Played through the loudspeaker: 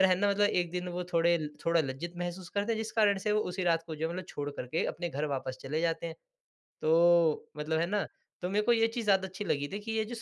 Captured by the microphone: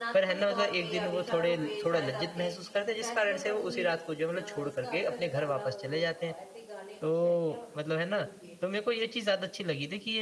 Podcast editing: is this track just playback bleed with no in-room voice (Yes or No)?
No